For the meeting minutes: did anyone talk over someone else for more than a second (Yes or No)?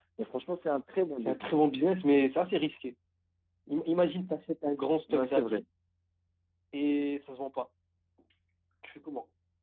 No